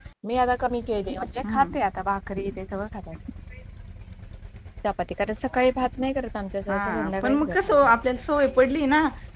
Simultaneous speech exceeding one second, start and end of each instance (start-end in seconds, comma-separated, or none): 6.7-7.9